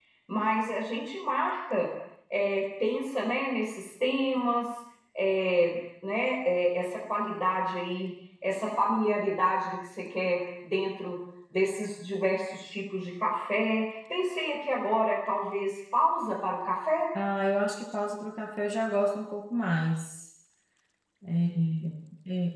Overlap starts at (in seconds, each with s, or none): none